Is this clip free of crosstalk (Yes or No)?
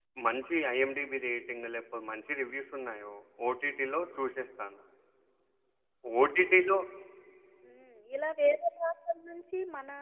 Yes